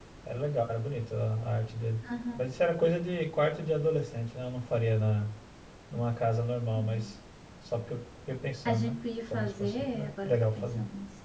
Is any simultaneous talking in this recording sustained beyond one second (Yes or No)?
Yes